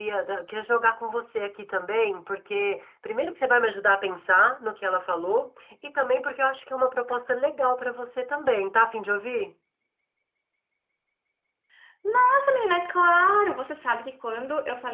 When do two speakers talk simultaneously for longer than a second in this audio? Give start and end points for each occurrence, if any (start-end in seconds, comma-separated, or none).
none